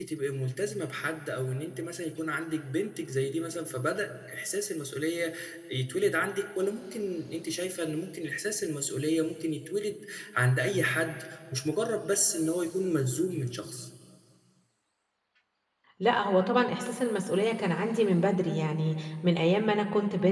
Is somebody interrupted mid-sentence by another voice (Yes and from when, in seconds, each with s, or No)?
No